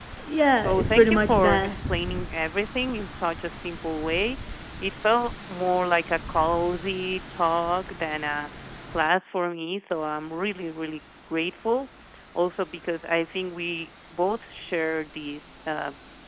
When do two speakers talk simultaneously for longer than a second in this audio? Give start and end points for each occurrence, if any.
0.6-1.8

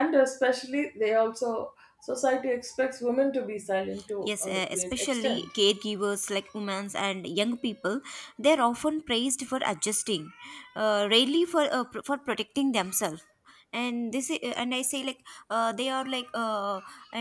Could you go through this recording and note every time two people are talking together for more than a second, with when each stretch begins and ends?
4.2-5.5

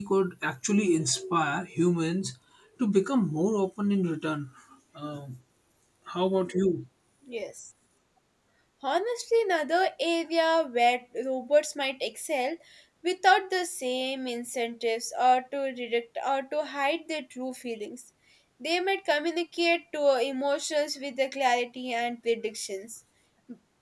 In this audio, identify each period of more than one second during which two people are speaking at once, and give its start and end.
none

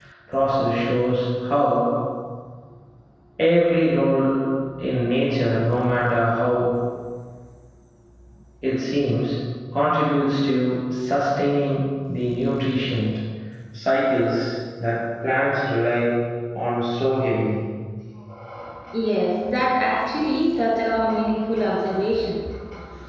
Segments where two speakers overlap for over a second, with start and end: none

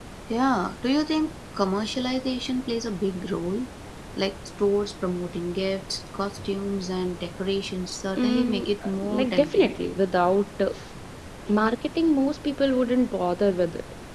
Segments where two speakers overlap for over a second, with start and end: 8.2-9.7

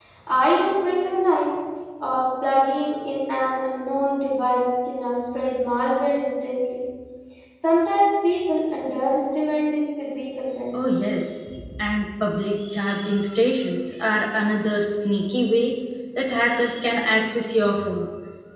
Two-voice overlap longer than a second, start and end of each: none

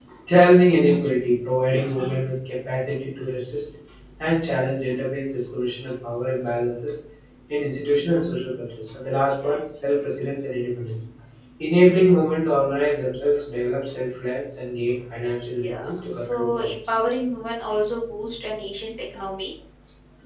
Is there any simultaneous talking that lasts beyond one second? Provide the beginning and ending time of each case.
15.6-17.0

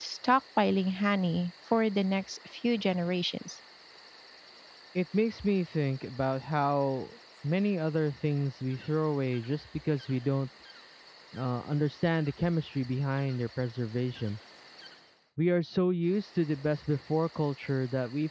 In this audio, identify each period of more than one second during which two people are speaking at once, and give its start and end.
none

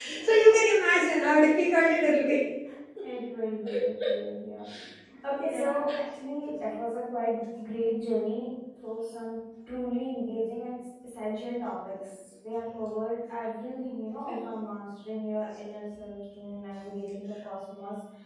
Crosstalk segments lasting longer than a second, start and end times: none

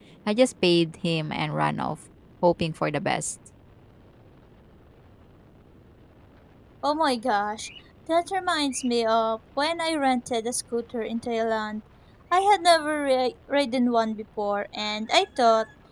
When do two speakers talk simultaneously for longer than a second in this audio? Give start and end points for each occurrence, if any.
none

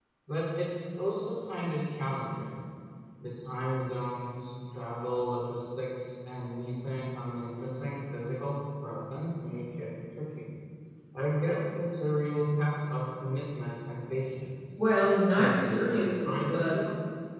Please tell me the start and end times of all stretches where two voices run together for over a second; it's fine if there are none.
15.4-16.8

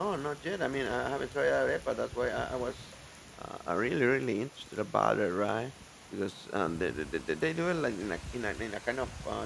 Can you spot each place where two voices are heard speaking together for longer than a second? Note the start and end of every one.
none

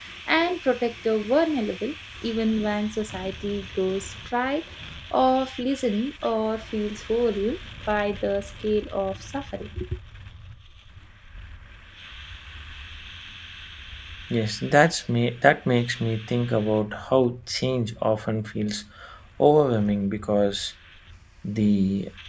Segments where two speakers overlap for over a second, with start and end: none

